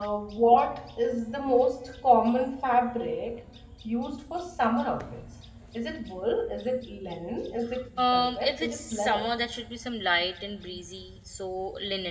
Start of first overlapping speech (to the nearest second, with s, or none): 8 s